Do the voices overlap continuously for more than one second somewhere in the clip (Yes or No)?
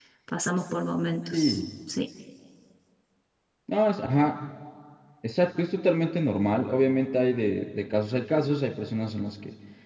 No